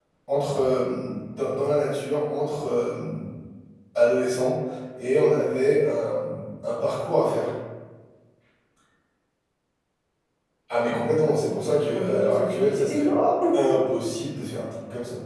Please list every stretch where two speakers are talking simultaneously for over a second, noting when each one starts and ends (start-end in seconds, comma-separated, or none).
11.7-13.1